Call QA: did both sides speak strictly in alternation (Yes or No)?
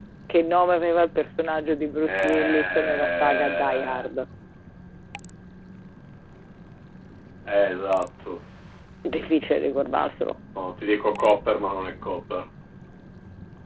No